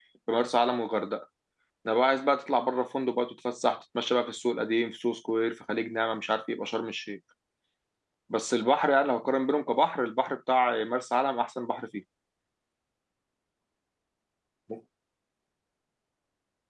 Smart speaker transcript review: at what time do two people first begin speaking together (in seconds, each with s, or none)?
none